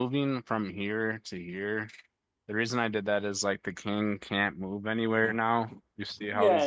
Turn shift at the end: Yes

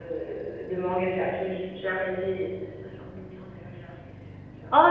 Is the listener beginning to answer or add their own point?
Yes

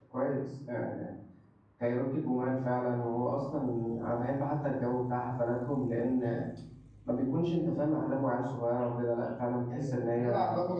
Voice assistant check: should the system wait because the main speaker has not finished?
No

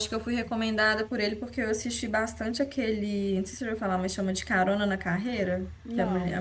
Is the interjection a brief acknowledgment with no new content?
Yes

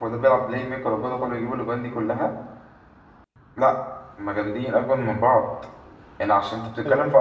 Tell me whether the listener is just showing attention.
Yes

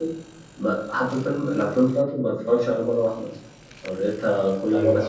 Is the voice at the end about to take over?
Yes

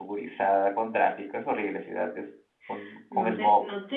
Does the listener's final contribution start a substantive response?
Yes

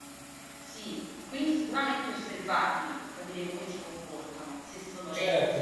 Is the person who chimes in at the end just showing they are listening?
No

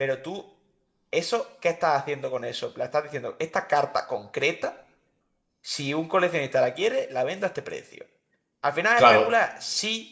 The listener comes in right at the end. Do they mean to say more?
No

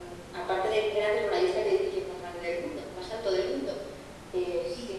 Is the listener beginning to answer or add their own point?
No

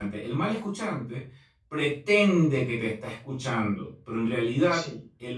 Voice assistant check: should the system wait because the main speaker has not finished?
Yes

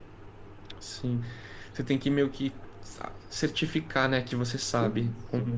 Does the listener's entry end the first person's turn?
Yes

